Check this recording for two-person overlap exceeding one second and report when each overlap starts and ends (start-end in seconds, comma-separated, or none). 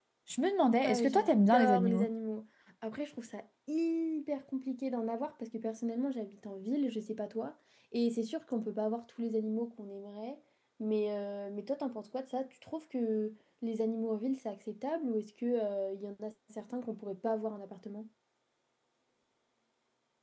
0.8-2.0